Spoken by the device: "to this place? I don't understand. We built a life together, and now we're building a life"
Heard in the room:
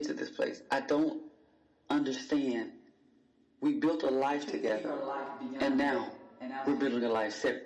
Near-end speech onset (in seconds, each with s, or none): 4.4 s